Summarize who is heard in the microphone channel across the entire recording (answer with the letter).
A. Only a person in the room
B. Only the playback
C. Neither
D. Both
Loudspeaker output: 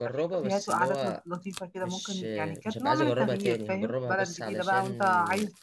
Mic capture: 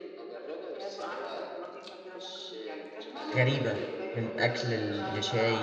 D